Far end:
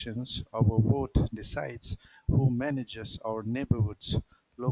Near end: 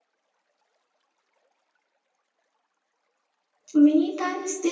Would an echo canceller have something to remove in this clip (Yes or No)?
No